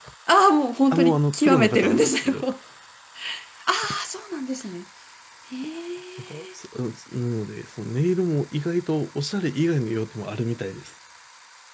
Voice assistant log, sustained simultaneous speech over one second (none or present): present